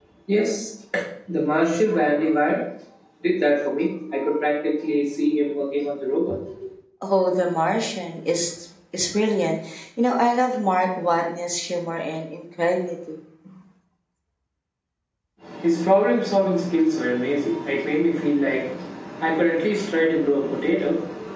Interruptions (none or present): none